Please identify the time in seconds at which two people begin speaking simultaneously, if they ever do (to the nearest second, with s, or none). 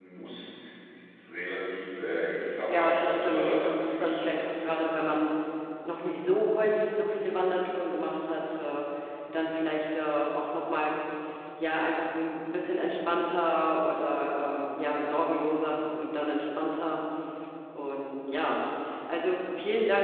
3 s